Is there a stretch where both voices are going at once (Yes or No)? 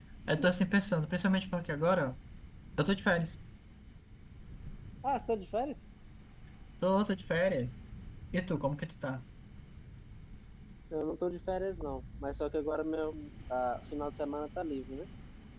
No